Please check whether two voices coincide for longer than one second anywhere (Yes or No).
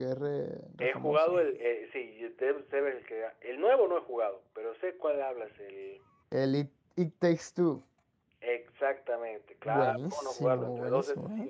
Yes